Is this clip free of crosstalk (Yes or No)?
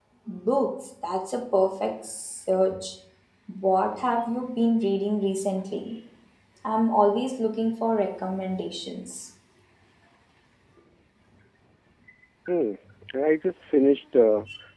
Yes